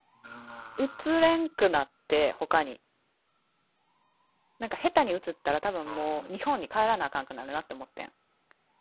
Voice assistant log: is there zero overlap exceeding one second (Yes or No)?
Yes